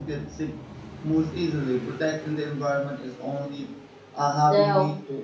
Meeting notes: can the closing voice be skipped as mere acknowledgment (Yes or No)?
Yes